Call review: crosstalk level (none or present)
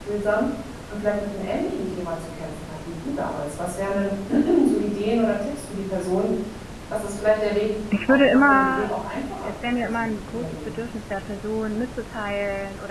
present